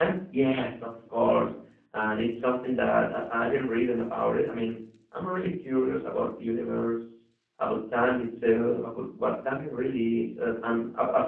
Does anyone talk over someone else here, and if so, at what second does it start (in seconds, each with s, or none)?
none